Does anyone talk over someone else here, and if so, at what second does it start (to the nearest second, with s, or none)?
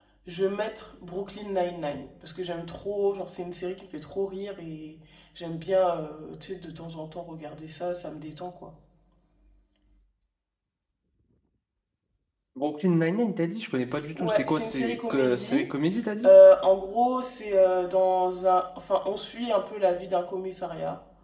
14 s